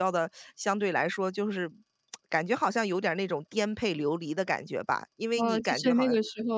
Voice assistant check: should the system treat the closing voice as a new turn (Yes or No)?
Yes